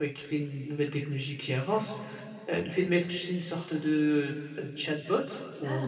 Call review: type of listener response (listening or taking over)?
listening